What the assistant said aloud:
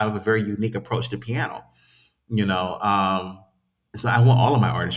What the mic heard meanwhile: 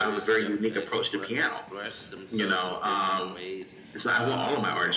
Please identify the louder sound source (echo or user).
echo